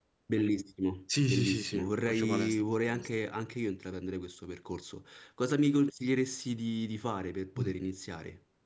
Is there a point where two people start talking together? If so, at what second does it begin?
1.3 s

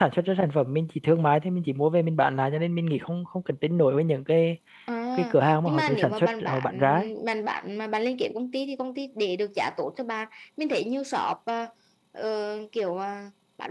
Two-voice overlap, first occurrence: 5.1 s

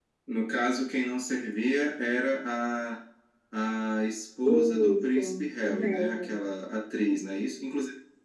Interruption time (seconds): 4.4 s

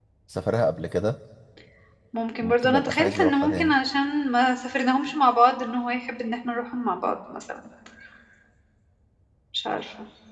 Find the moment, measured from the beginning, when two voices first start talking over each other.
2.4 s

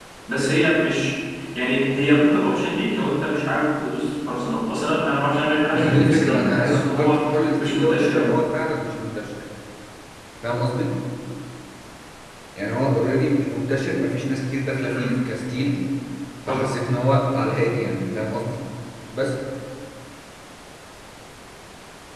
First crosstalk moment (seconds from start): 5.7 s

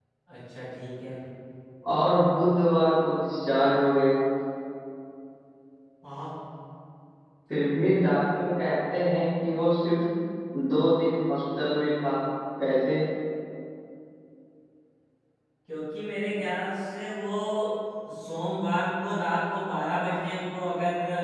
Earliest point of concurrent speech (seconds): none

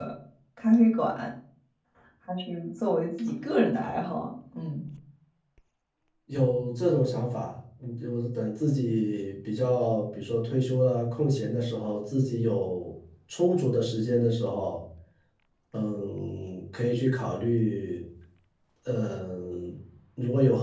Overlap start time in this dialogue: none

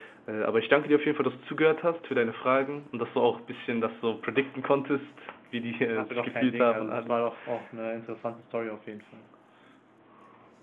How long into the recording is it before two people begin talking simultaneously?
6.0 s

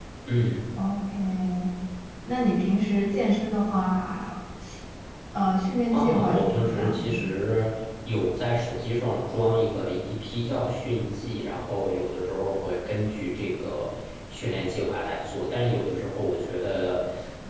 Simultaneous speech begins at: 5.9 s

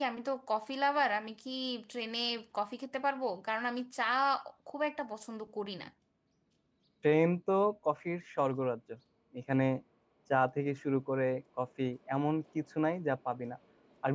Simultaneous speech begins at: none

